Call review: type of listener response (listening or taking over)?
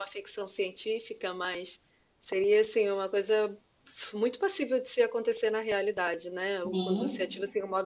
listening